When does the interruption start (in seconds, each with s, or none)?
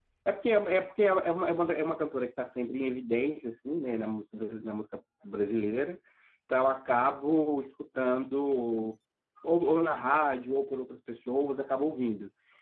none